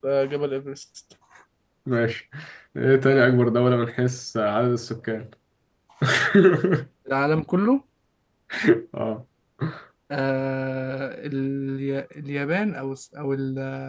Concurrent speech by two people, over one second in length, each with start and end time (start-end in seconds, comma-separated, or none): none